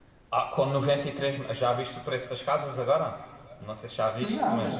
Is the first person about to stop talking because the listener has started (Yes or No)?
Yes